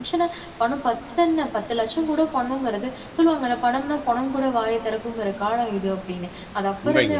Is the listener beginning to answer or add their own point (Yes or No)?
No